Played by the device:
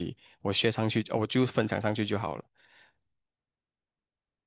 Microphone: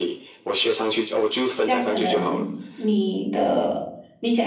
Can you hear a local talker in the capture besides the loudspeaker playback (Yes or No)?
Yes